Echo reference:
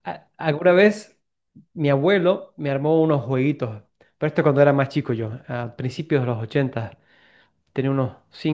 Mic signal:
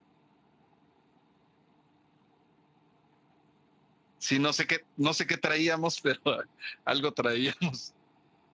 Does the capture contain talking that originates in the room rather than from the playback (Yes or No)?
Yes